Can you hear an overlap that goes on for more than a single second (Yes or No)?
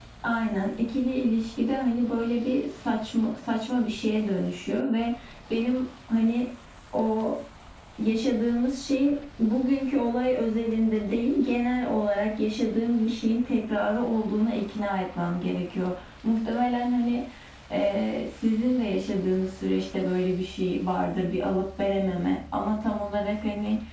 No